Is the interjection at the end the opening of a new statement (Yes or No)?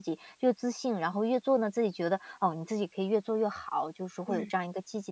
No